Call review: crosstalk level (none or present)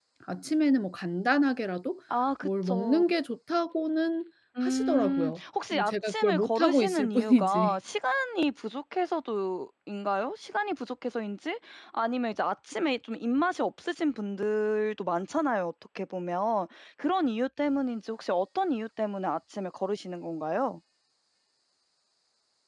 present